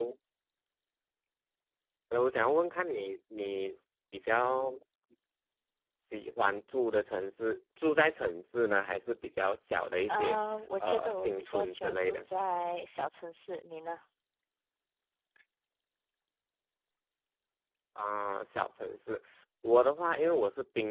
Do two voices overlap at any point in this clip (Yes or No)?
Yes